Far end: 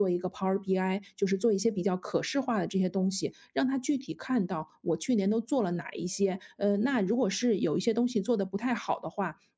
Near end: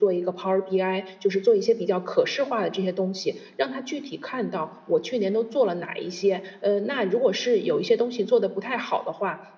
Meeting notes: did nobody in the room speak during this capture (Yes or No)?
Yes